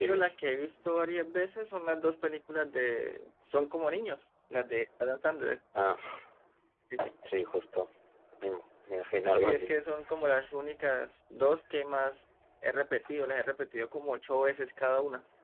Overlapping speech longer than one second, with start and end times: none

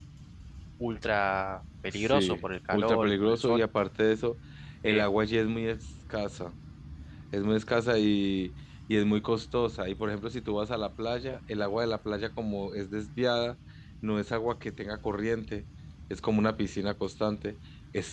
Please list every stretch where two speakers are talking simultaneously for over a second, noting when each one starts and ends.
1.9-3.6

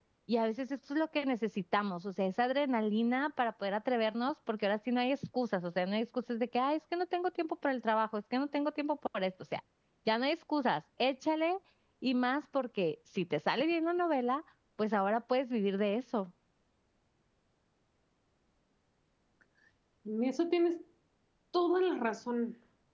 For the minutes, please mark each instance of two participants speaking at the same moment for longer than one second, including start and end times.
none

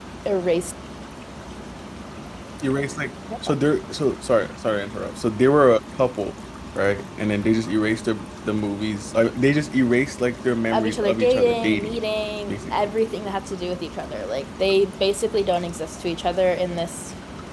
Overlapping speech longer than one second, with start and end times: 10.7-12.0

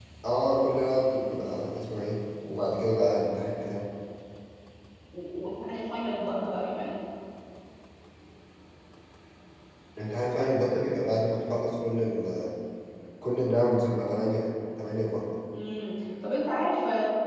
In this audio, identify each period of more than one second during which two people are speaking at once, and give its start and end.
none

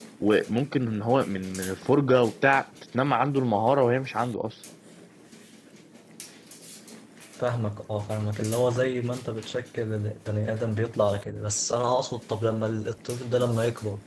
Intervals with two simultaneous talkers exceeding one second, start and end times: none

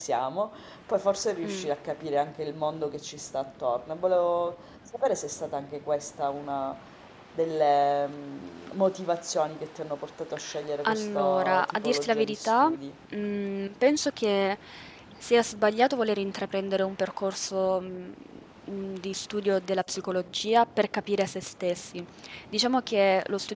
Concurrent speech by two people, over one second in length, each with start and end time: 10.8-12.7

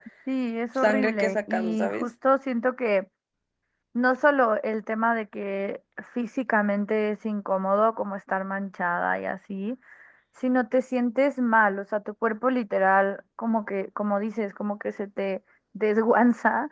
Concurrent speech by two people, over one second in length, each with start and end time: 0.8-2.1

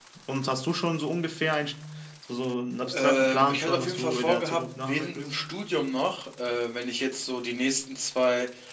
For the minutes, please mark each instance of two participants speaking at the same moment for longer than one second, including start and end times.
2.9-5.2

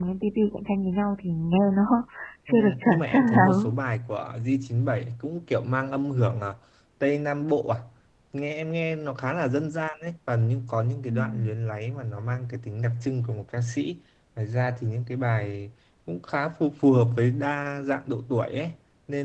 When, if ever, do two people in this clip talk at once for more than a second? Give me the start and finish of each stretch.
2.5-3.8

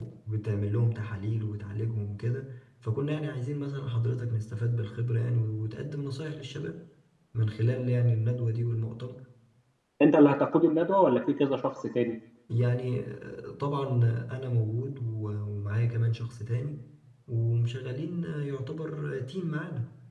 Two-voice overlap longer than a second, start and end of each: none

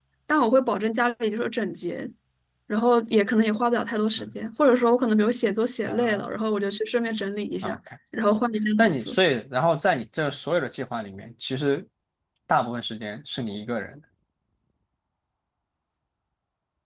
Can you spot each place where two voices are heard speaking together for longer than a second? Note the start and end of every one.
none

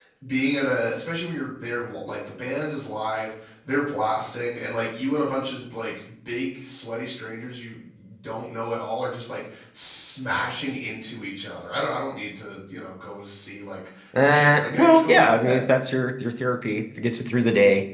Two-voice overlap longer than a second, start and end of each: 14.2-15.6

